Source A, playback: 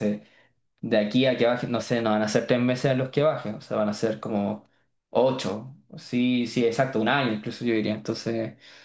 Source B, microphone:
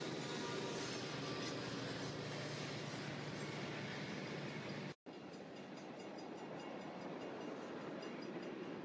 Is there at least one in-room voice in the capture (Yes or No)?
No